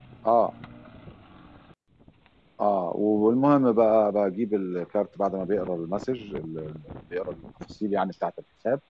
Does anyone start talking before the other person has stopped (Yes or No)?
No